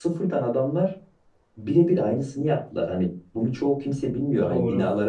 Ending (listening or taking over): listening